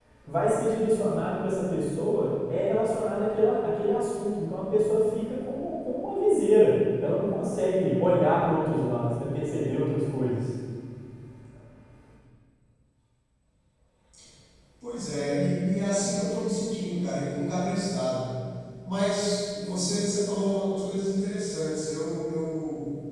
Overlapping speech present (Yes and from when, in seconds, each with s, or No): No